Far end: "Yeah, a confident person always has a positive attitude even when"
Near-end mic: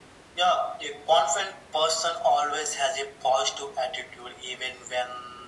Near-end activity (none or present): none